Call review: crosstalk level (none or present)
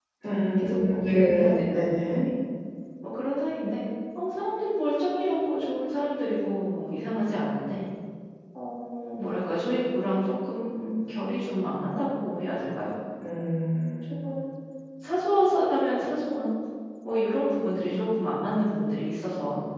present